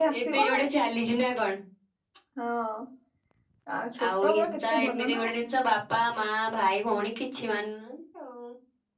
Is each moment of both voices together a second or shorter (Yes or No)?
No